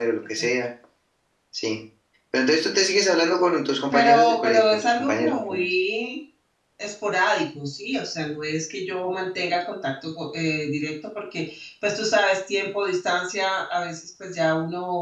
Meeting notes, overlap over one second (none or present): present